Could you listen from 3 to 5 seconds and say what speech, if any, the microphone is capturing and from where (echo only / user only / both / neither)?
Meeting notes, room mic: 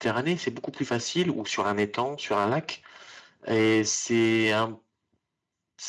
user only